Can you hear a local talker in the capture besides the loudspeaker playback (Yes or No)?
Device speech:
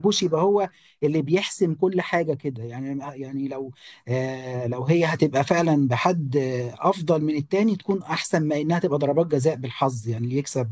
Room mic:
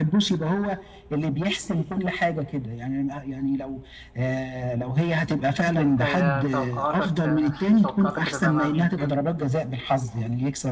Yes